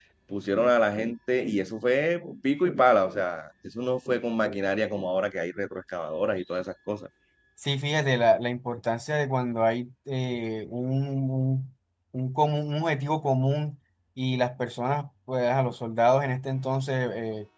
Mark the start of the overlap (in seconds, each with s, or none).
none